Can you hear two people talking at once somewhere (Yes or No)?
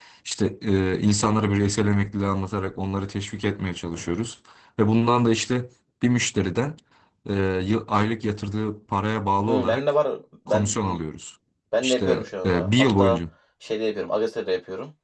Yes